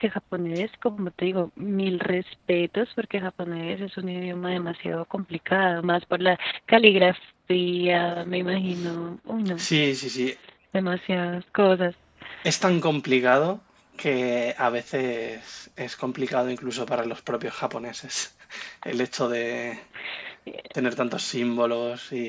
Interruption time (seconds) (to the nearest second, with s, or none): none